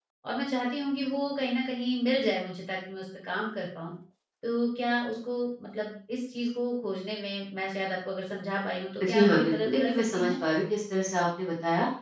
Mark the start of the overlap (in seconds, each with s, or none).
9.0 s